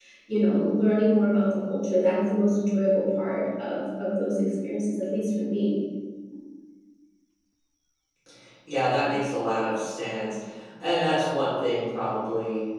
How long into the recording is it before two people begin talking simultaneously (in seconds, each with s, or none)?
none